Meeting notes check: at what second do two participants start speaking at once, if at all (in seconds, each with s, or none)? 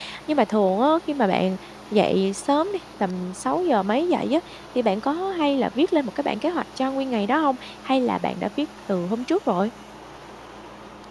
none